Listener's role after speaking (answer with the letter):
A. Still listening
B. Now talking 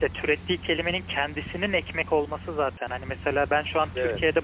A